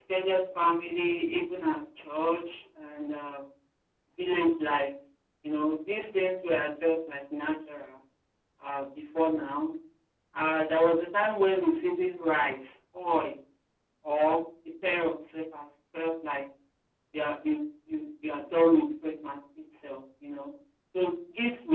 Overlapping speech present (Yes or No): No